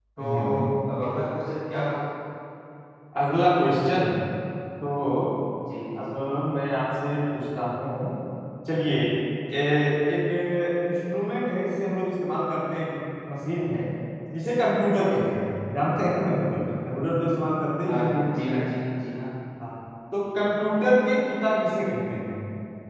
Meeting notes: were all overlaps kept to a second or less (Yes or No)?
Yes